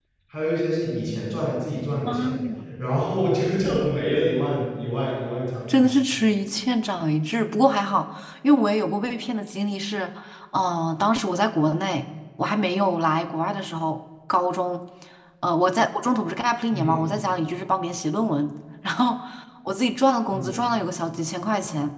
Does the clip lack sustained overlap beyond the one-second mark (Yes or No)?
Yes